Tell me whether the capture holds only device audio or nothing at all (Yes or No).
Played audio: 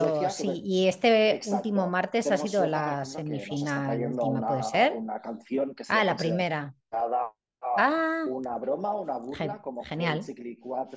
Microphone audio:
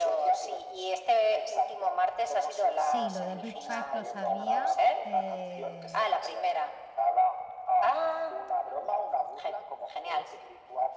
No